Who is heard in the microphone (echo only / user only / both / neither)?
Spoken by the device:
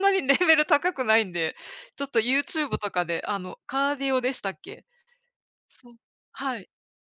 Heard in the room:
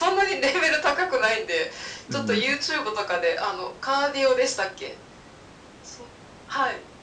both